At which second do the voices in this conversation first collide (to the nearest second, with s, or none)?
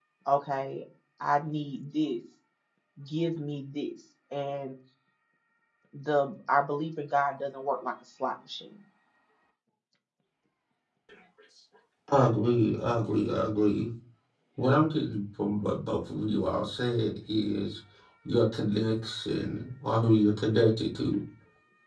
none